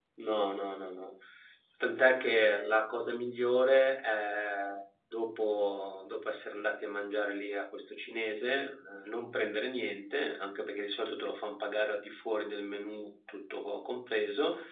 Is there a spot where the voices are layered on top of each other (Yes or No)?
No